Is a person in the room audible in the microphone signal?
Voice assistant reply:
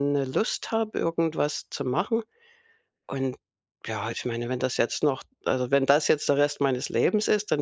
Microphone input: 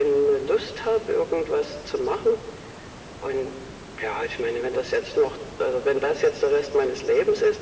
No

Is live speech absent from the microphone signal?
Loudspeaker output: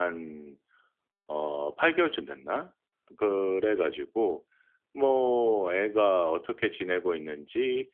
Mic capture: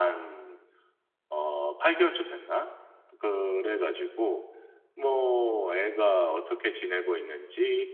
Yes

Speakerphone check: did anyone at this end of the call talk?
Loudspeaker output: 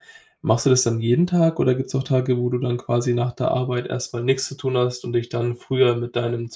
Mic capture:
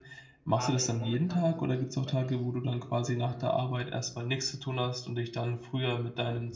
Yes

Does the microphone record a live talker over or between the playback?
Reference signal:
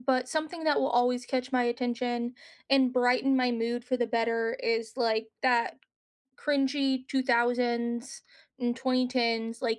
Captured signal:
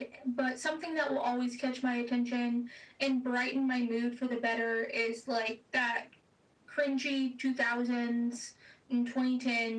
No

